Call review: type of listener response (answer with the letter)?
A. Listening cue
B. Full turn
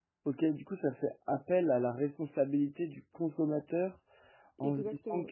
A